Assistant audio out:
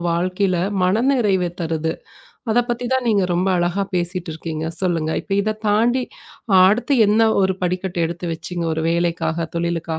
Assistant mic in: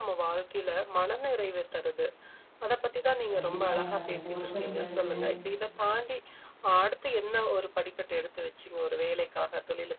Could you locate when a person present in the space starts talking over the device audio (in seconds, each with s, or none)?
3.3 s